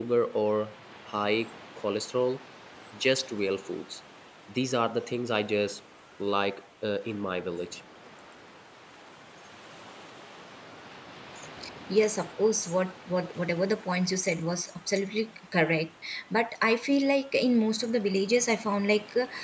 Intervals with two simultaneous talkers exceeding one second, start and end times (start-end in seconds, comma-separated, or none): none